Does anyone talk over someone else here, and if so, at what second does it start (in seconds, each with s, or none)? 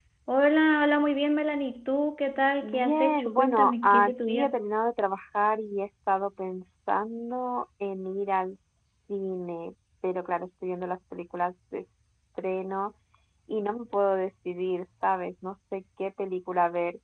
2.6 s